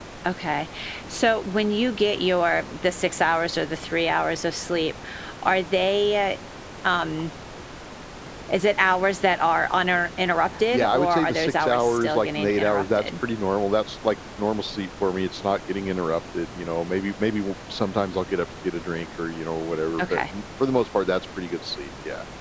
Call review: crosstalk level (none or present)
present